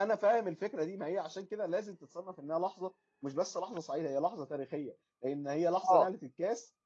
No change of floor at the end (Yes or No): Yes